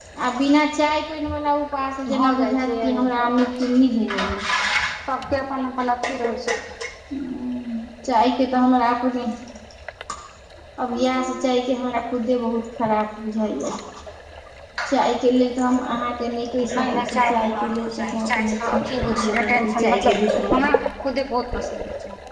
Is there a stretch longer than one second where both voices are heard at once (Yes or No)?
Yes